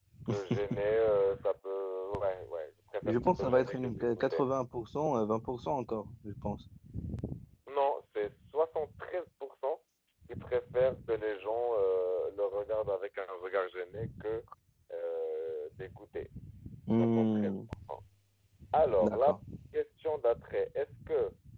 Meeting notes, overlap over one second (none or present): present